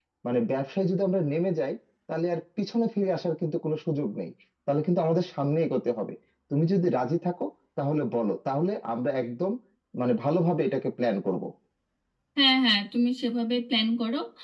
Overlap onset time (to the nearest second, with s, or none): none